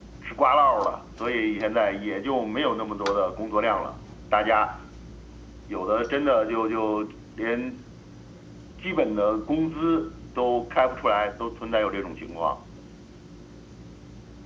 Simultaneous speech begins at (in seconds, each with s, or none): none